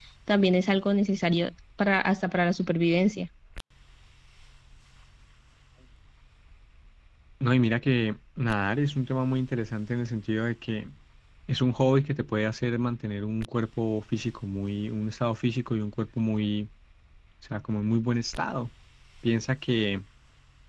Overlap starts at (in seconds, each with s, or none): none